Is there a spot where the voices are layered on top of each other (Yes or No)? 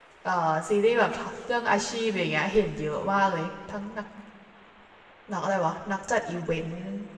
No